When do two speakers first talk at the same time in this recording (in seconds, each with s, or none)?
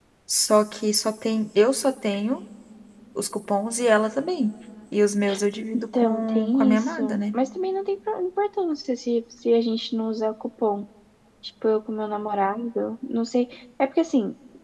5.7 s